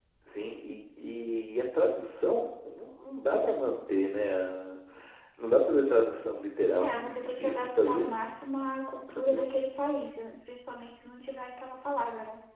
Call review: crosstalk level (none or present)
present